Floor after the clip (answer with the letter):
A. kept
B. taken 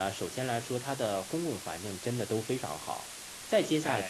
A